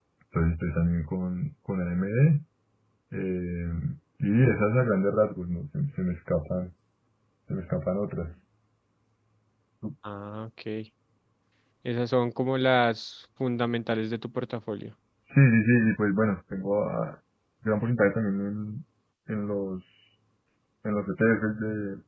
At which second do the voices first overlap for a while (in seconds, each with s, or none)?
none